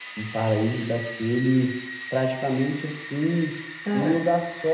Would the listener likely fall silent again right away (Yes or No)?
Yes